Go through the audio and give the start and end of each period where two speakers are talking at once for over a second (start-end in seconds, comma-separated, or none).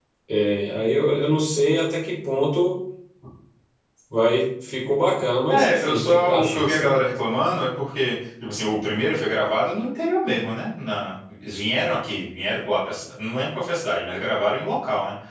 5.5-7.0